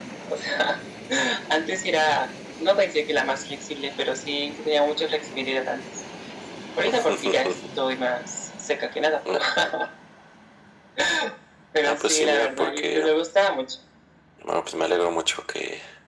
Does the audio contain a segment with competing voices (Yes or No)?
Yes